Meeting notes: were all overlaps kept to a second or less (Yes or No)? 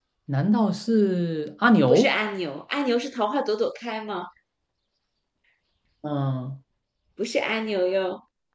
Yes